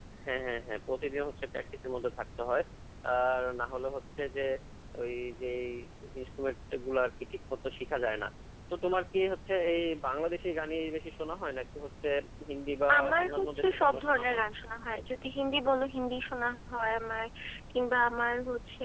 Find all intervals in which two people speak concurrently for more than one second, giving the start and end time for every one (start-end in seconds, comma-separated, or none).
13.0-14.4